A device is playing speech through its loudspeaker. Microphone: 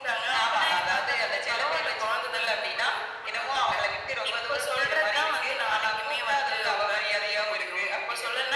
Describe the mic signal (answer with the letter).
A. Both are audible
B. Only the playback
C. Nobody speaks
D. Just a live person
B